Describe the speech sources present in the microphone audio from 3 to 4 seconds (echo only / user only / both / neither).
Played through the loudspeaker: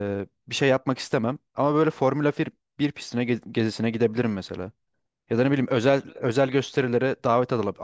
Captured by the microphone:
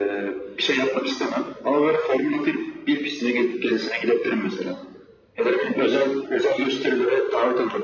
echo only